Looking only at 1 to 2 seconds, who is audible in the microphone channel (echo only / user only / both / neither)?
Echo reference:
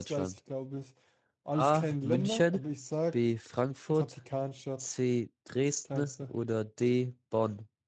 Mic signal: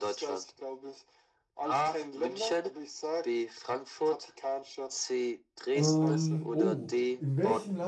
echo only